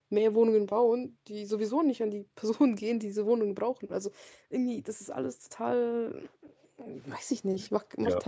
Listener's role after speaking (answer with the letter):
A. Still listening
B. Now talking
B